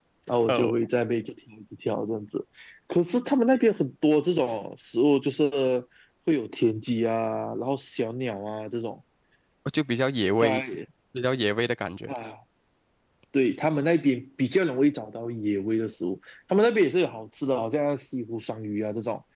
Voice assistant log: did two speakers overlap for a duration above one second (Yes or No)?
No